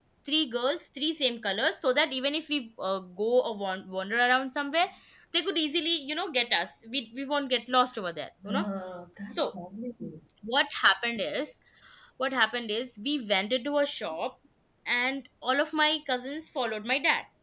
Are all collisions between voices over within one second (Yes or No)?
Yes